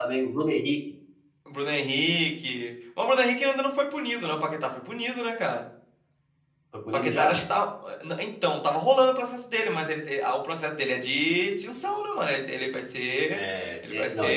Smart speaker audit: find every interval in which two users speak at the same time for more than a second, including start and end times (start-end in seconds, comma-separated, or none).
none